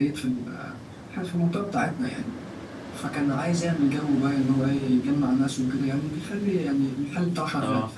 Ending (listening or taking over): listening